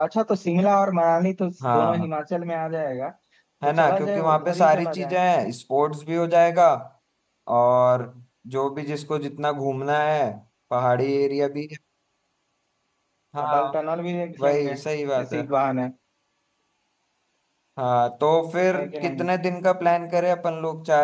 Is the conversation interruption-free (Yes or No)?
No